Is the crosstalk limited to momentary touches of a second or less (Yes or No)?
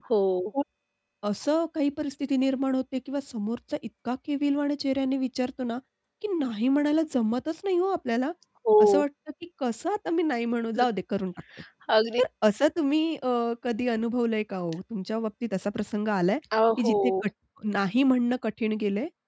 Yes